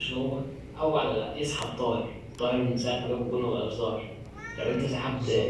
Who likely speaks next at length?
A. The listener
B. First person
B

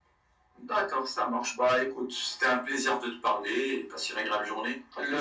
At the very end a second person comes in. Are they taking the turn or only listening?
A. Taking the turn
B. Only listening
A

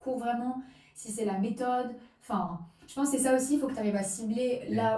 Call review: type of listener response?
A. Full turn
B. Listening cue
B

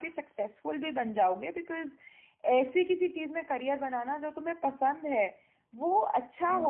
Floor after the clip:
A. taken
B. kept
B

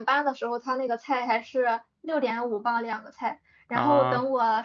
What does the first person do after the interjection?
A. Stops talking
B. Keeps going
B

